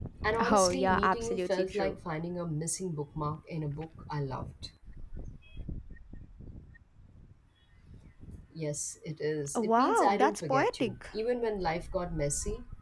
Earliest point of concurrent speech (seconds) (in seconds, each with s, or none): 0.5 s